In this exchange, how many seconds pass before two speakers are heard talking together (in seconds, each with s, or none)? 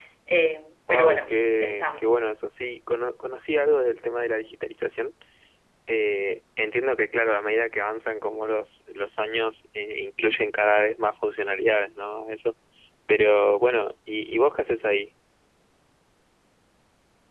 0.9 s